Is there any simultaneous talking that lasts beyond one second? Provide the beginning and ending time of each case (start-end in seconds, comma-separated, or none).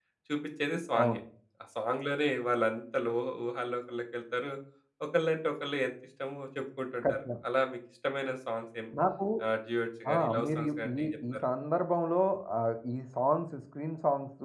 10.1-11.4